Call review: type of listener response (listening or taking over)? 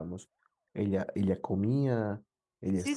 taking over